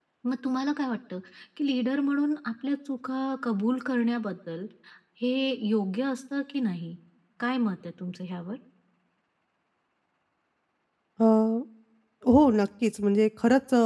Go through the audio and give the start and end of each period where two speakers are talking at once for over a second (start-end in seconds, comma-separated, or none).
none